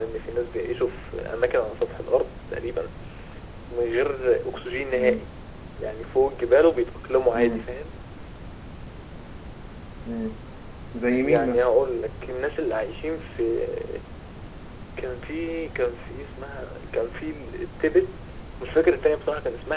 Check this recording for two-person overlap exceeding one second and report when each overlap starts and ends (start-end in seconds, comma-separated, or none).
none